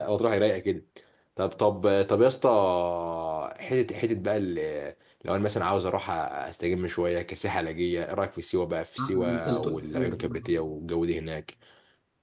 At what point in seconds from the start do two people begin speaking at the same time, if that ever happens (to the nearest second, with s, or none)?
9 s